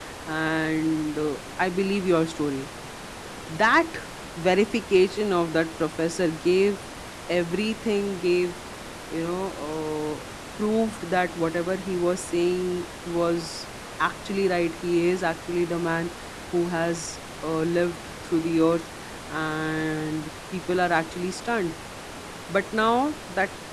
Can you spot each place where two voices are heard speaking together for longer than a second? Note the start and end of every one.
none

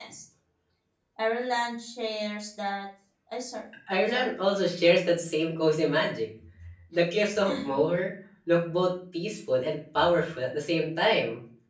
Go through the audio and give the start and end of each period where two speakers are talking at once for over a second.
none

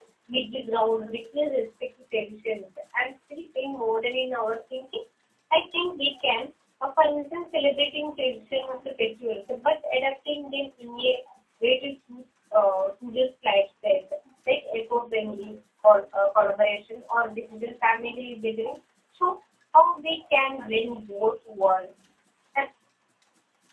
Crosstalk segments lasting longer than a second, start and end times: none

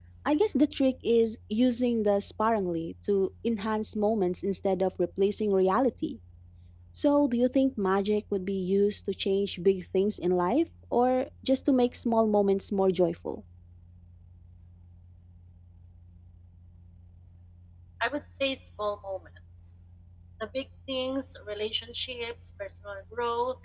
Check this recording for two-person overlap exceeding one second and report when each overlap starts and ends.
none

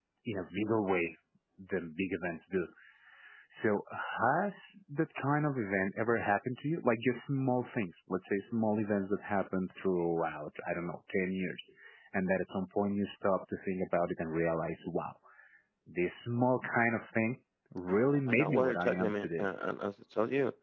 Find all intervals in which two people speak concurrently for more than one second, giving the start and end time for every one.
17.9-19.5

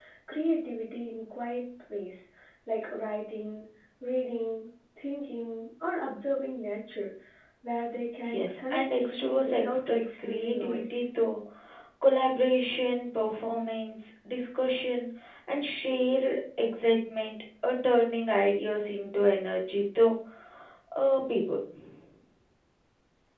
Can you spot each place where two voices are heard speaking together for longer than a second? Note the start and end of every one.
8.2-11.0

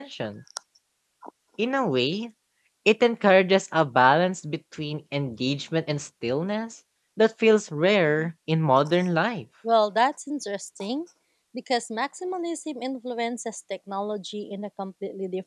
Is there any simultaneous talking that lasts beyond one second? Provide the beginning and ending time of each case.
none

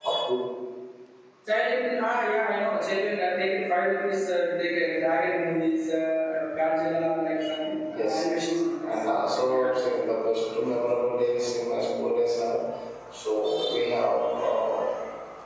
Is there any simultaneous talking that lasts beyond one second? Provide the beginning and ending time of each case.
none

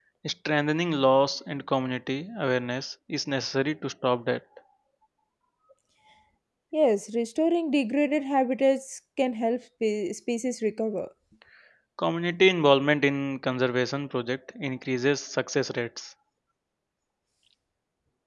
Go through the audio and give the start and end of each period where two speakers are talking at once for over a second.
none

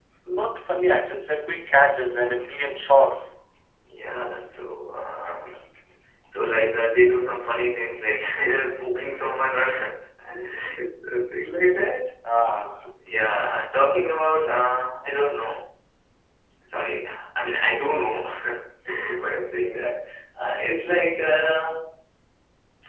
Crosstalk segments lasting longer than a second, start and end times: none

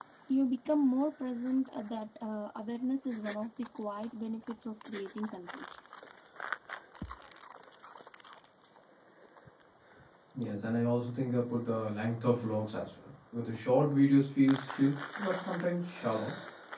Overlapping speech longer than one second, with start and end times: none

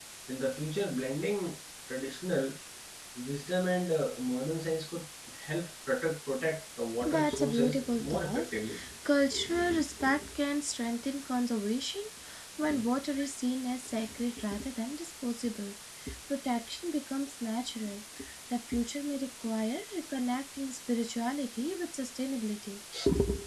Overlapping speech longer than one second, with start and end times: 7.0-8.6

